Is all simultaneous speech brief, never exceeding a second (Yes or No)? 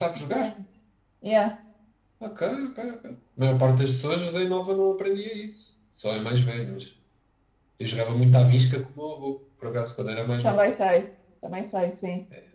Yes